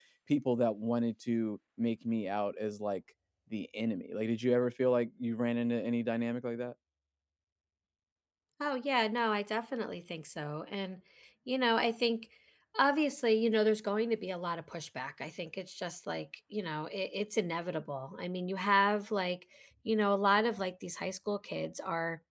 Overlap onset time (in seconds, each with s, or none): none